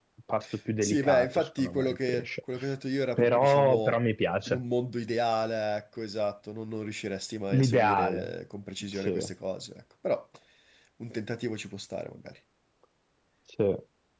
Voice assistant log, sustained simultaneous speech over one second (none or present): present